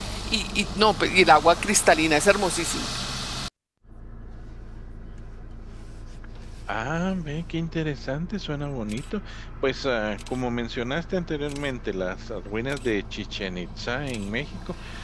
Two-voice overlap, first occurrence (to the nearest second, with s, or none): none